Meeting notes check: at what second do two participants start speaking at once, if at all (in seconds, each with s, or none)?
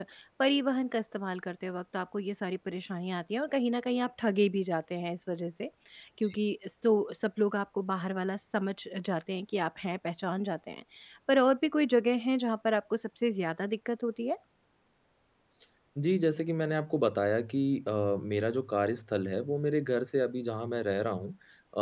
none